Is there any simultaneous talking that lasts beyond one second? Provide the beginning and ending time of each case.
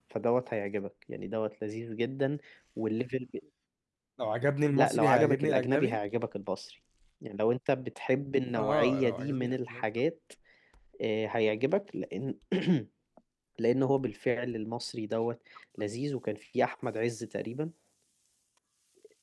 4.7-6.0, 8.5-9.8

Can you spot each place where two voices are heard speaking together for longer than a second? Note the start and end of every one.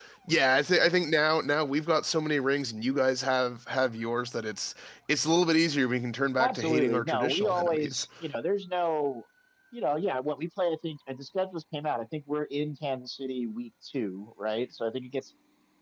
6.4-8.1

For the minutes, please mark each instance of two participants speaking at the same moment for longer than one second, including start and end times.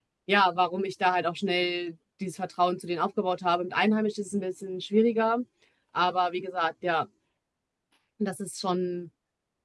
none

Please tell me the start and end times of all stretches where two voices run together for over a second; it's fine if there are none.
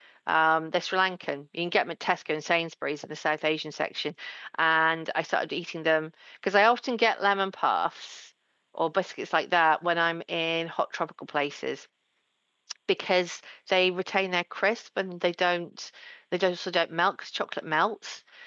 none

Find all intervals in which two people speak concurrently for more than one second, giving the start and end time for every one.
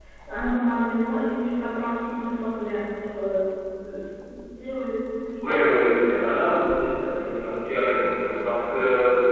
none

